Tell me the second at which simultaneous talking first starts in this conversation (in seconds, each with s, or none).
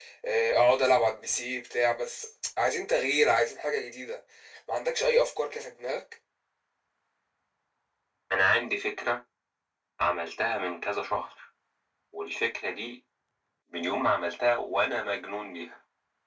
none